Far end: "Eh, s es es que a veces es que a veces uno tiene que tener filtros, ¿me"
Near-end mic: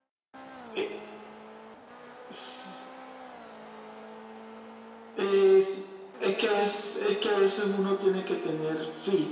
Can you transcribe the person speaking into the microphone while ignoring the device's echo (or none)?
none